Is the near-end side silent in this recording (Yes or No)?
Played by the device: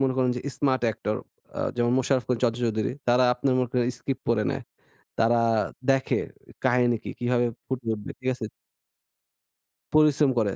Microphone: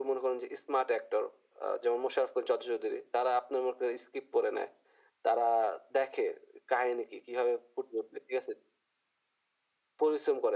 Yes